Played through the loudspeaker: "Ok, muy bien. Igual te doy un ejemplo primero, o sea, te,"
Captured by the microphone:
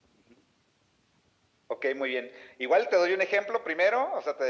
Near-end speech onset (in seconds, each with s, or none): none